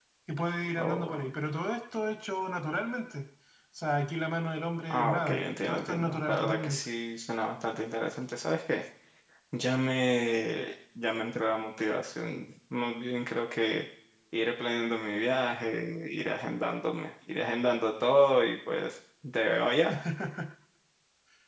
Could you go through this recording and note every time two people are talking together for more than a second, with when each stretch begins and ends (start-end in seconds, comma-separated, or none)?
4.9-6.8